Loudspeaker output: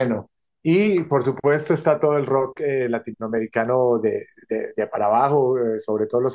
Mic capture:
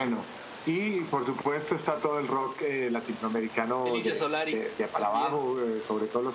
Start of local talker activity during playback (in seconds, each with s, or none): 3.8 s